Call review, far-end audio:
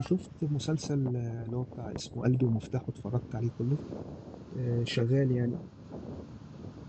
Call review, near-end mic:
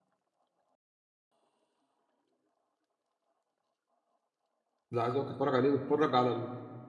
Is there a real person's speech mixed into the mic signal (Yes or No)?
Yes